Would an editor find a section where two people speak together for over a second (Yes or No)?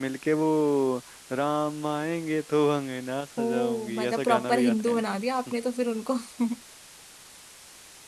Yes